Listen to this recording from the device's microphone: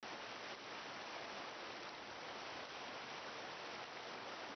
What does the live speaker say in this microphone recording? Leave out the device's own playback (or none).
none